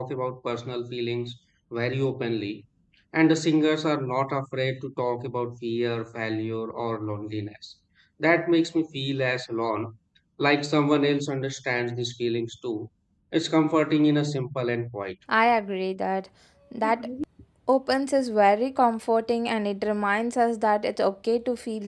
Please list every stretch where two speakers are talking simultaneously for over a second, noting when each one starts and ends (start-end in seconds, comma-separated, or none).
none